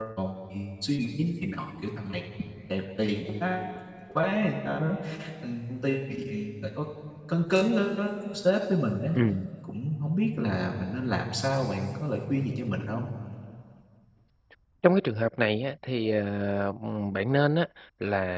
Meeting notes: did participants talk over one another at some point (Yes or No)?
No